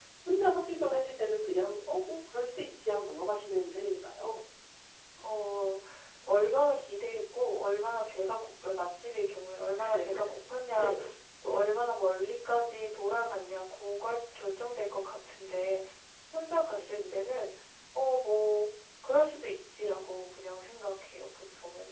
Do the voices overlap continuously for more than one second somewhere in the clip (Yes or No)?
No